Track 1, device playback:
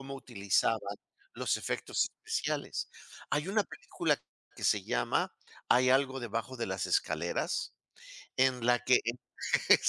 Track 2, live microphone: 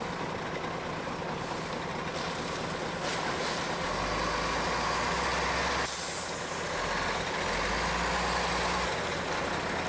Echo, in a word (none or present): none